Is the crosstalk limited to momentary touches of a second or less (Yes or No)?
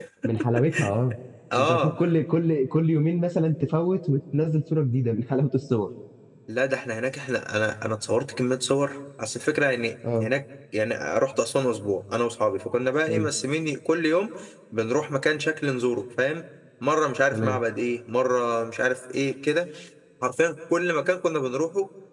Yes